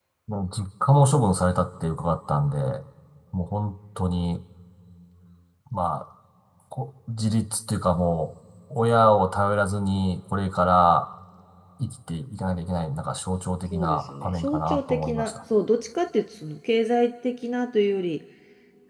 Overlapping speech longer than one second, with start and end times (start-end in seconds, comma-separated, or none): 13.7-15.4